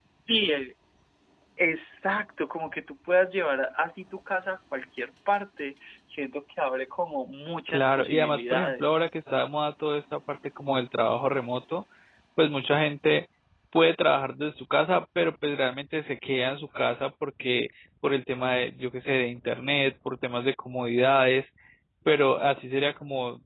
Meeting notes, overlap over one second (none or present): present